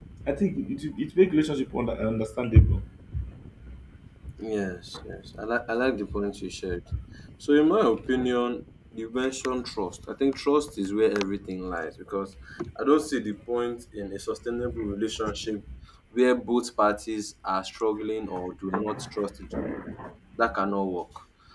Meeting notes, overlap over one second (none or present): none